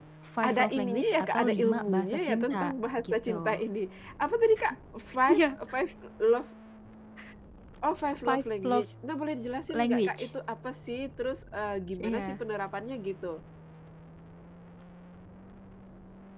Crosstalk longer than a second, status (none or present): present